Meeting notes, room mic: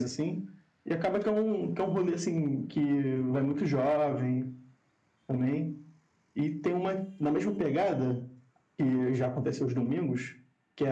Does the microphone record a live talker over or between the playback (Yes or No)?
No